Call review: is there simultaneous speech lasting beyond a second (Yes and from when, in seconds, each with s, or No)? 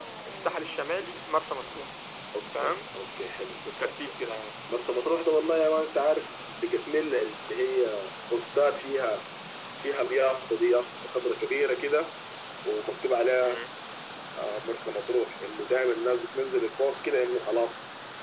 No